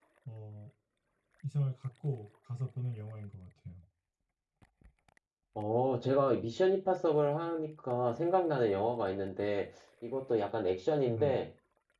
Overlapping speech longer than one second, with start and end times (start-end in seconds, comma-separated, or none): none